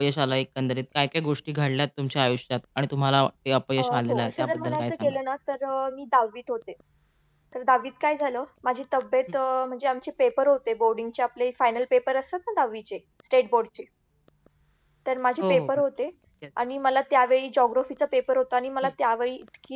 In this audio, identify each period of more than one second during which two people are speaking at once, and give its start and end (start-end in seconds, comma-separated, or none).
3.8-5.2